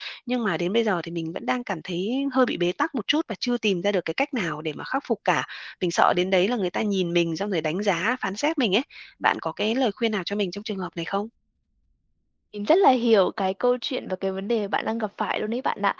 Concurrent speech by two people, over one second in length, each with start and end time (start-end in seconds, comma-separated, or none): none